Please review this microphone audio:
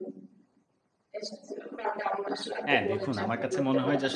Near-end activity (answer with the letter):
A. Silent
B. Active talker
B